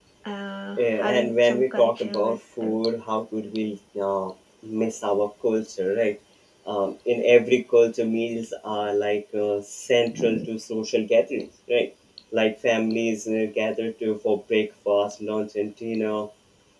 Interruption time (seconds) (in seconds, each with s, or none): 0.8 s